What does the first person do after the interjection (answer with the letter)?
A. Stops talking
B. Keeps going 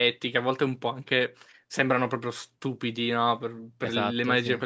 B